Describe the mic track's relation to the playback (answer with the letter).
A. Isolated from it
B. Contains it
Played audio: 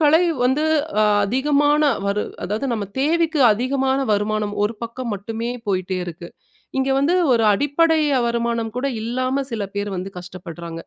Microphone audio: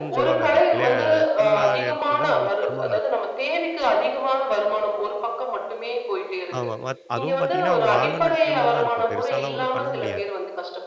B